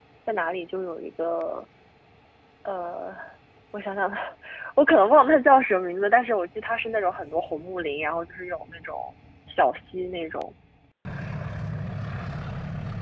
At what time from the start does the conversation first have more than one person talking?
none

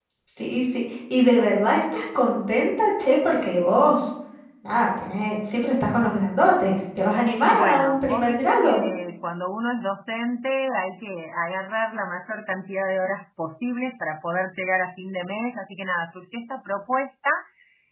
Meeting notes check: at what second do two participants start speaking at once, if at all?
8 s

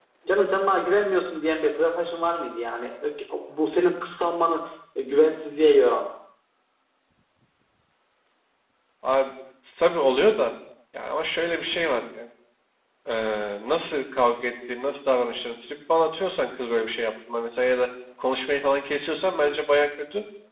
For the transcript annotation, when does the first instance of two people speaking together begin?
none

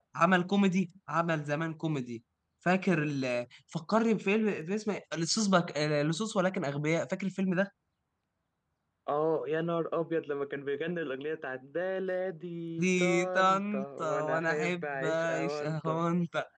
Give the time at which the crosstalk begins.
13 s

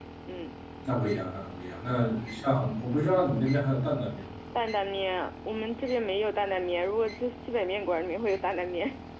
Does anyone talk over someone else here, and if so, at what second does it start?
none

